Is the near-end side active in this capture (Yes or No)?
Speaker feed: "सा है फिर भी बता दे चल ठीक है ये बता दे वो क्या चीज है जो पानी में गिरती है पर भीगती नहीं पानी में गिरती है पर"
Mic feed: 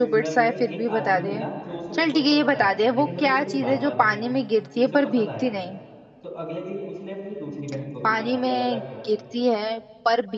Yes